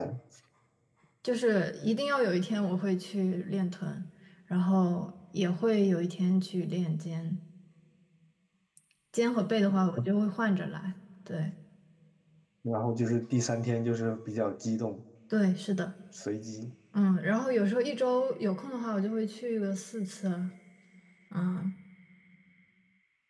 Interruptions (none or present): none